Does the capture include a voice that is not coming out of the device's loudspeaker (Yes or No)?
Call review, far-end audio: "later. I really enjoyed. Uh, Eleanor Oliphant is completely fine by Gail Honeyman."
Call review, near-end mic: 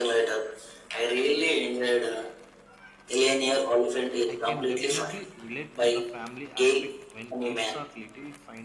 Yes